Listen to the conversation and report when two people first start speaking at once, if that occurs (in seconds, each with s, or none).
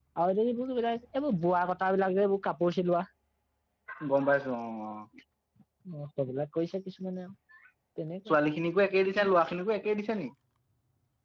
none